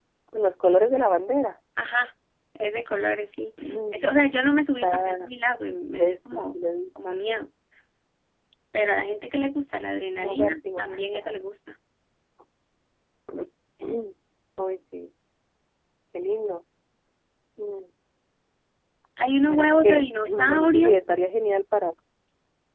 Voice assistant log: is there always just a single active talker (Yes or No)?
No